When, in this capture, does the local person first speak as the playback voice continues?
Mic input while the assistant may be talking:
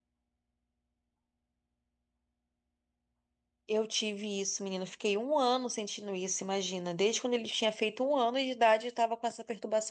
4 s

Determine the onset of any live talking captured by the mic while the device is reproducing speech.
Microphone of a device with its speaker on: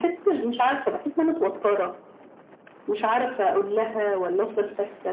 none

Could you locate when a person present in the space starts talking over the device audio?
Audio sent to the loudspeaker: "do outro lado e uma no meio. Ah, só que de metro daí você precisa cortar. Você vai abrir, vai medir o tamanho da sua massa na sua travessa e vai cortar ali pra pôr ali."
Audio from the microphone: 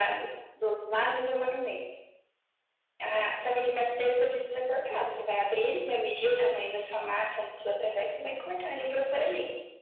none

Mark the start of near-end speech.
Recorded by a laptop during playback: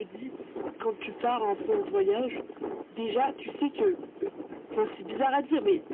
none

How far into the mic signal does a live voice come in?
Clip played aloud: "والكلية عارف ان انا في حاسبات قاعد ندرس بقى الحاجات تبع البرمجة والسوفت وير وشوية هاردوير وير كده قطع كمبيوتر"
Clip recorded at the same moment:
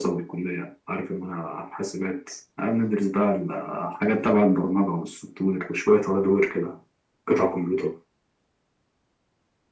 none

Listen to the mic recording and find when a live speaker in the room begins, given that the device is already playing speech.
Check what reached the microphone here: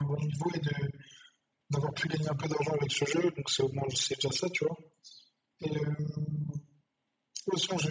none

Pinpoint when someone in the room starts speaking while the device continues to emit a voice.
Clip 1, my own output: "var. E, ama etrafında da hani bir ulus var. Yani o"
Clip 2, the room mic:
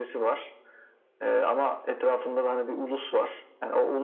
none

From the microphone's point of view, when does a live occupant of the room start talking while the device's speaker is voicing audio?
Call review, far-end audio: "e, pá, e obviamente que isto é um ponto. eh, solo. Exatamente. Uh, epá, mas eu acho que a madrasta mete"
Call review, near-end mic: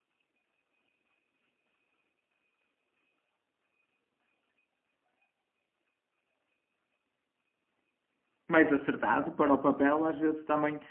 8 s

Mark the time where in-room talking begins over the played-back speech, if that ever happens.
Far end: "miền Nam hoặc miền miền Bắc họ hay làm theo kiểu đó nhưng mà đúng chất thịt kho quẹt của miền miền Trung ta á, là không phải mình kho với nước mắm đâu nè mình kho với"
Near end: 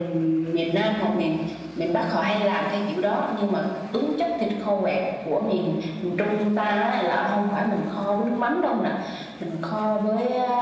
none

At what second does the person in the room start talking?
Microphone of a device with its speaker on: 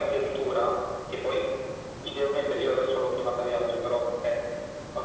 none

